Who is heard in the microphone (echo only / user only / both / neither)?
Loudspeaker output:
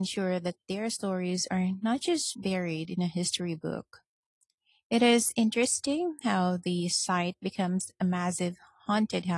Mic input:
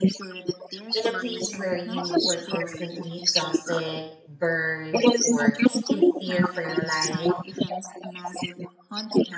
both